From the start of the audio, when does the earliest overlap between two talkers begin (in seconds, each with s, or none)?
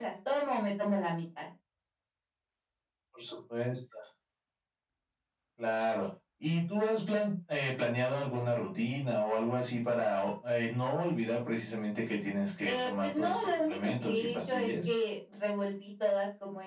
12.6 s